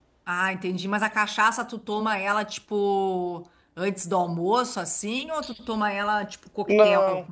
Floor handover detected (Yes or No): Yes